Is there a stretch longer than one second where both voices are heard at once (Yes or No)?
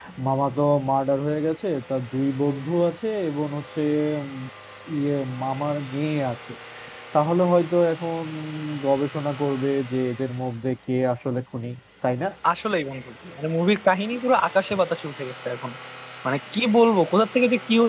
No